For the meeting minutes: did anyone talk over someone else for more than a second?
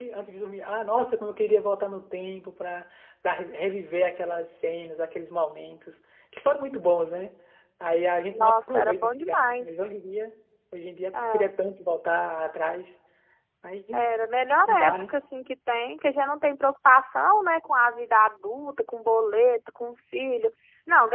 Yes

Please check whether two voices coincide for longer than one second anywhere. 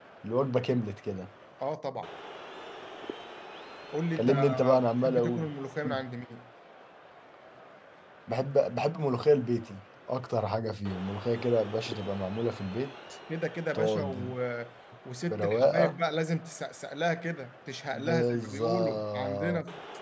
Yes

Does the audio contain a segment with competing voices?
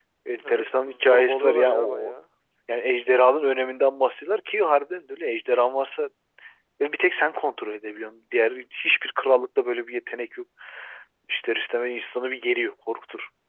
Yes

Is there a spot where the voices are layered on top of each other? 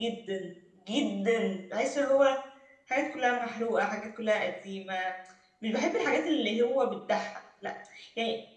No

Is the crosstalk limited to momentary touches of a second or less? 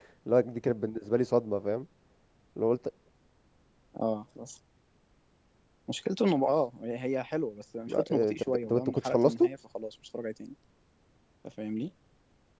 No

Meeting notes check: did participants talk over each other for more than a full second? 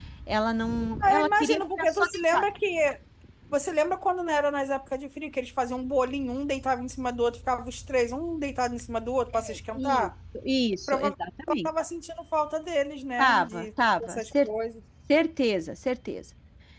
Yes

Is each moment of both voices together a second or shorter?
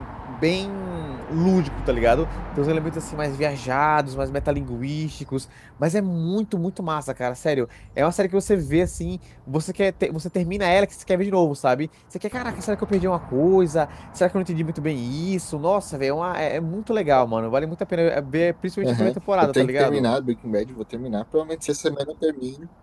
No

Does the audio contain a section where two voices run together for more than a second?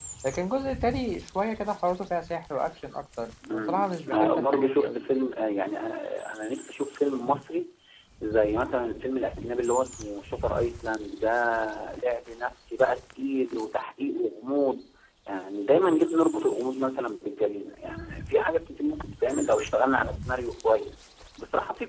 Yes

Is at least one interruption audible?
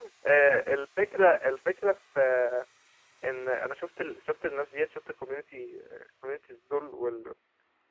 No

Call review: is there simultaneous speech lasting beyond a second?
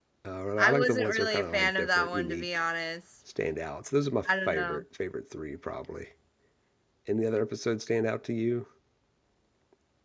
Yes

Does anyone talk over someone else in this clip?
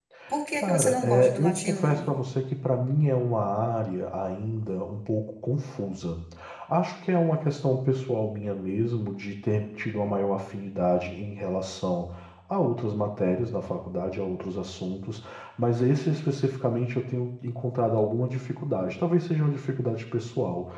Yes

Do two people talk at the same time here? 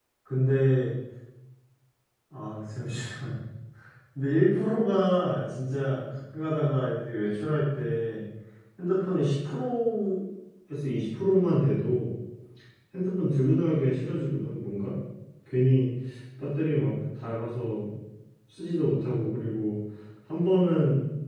No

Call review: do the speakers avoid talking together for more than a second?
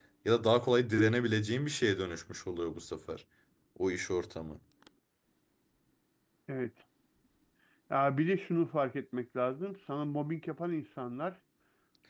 Yes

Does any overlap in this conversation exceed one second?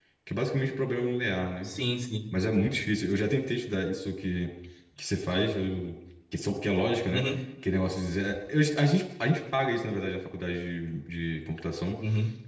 No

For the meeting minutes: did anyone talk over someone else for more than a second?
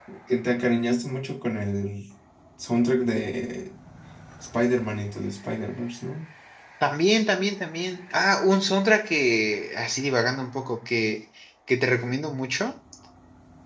No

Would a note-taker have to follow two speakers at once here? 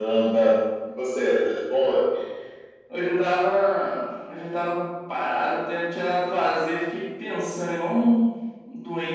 No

